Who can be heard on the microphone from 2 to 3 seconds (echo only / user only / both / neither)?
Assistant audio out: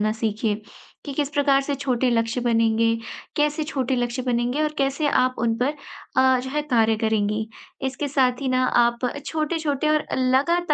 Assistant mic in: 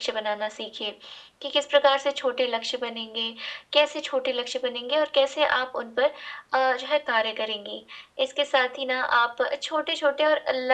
echo only